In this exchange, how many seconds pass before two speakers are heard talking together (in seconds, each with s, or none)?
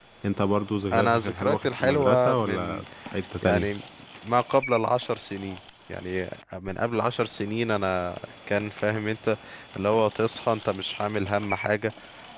0.9 s